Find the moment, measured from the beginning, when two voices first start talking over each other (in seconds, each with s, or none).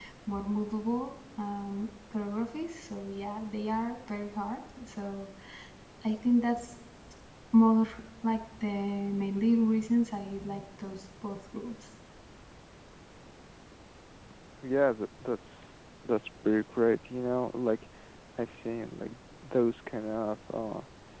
none